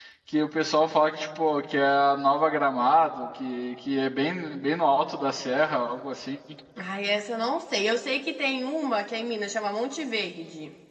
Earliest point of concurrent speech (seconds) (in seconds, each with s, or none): none